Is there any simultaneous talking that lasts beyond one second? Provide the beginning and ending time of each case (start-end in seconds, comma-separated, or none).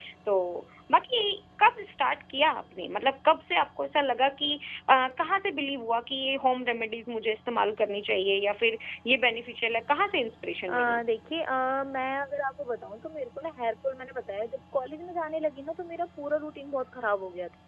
none